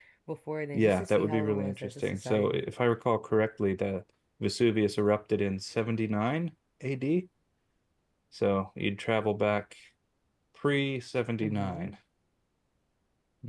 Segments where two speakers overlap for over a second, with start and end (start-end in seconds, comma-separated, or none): 0.7-2.7